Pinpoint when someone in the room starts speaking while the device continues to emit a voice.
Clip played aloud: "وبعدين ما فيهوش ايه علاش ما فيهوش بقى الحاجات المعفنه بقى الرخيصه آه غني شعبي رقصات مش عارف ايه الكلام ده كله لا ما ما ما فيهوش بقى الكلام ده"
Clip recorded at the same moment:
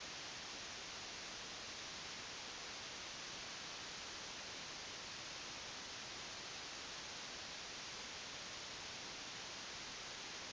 none

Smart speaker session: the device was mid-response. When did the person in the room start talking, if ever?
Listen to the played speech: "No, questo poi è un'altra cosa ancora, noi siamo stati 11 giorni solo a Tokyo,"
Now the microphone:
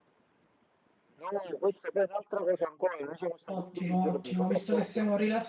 3.4 s

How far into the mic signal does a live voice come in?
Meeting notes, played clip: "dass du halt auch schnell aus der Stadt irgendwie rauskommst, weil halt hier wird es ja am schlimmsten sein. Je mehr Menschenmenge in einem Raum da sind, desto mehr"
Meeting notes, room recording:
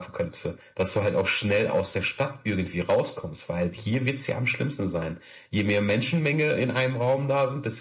none

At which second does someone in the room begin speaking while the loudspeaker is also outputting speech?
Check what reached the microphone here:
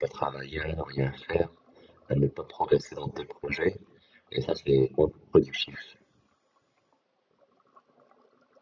none

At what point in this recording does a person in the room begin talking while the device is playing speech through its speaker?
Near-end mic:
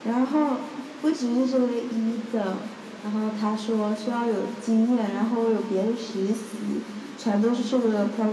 none

